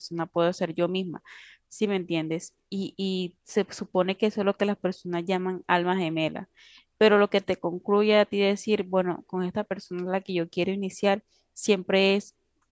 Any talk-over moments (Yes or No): No